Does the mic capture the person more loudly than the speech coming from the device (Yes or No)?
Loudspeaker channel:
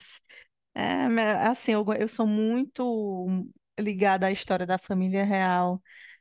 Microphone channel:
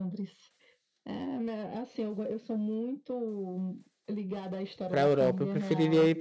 Yes